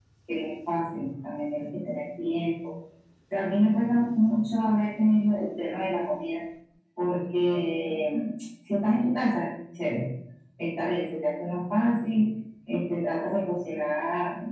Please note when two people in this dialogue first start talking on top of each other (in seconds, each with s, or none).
none